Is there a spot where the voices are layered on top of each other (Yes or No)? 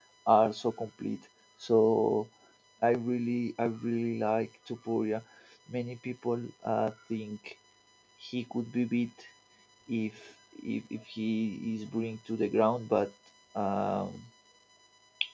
No